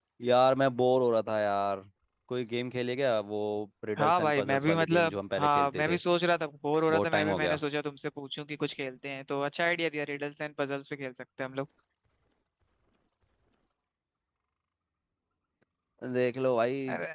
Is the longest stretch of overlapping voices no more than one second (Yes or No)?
No